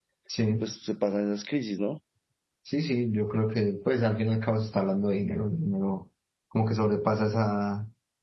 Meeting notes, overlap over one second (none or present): none